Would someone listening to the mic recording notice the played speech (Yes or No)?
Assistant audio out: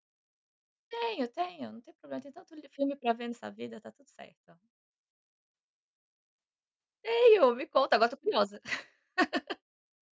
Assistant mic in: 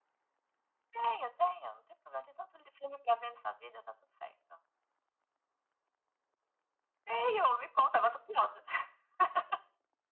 Yes